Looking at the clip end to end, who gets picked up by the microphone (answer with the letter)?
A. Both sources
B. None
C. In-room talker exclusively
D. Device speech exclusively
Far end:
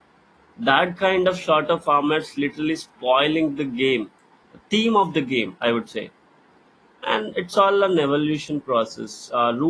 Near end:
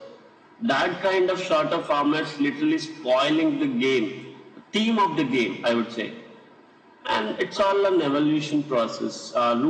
D